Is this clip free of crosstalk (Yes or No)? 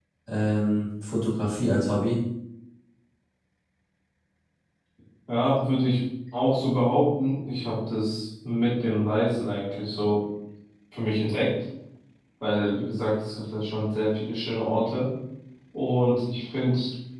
Yes